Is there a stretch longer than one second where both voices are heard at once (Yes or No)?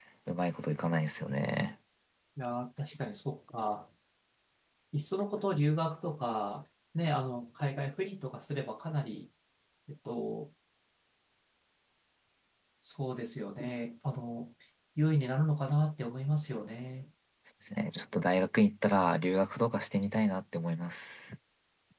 No